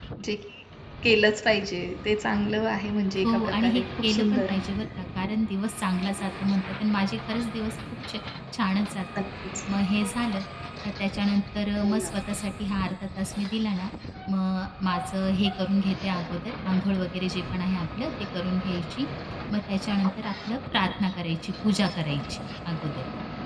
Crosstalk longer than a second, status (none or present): present